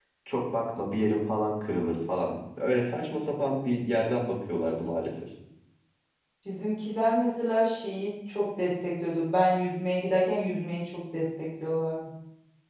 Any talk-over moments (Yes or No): No